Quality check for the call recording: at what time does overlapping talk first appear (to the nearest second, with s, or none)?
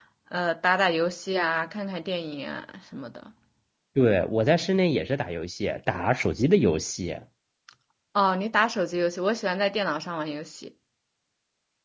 none